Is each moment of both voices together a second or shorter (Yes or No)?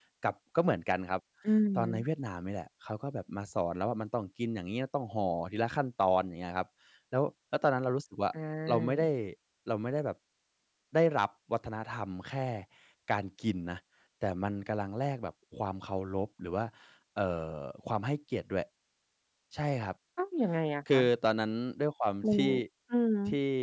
Yes